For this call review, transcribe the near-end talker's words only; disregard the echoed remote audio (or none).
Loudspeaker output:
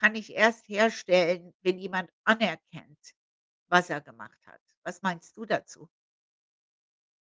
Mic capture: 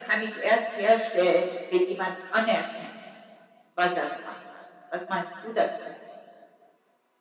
none